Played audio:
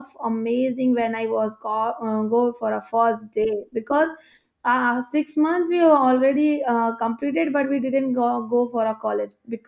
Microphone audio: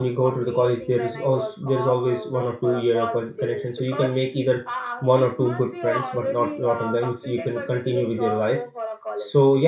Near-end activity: present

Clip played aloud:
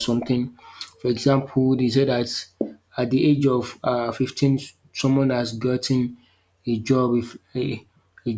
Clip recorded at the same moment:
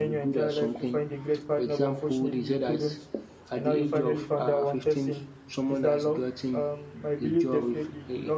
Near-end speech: present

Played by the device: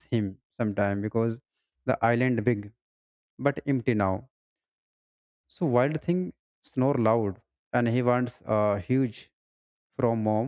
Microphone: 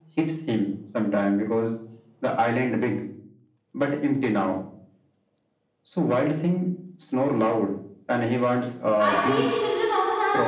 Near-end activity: present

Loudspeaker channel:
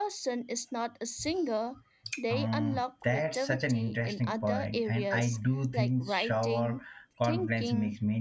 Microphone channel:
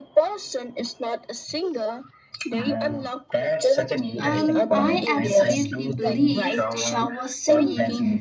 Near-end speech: present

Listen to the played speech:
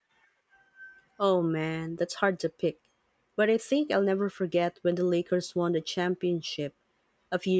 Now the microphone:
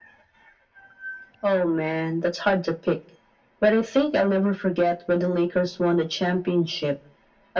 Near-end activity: none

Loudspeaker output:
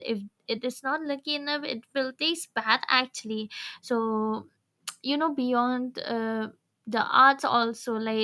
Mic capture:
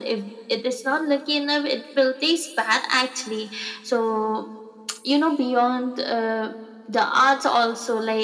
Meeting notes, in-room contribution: none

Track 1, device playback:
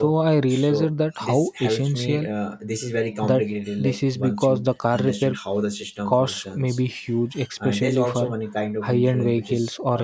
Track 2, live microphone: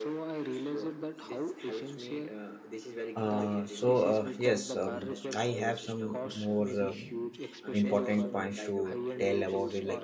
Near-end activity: present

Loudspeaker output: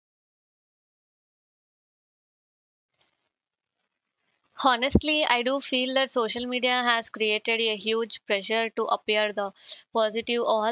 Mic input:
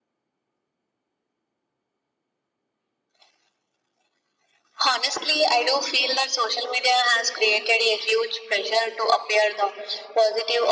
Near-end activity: none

